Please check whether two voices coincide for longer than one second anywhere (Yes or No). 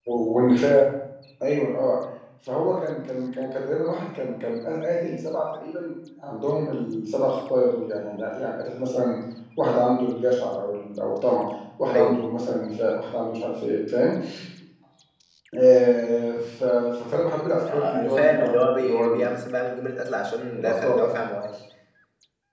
Yes